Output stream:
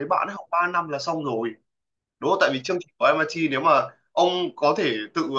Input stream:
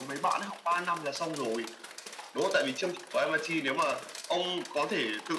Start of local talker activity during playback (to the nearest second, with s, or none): none